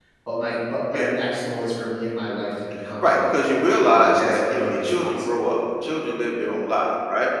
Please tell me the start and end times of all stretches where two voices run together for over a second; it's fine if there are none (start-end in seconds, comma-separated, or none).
3.8-5.5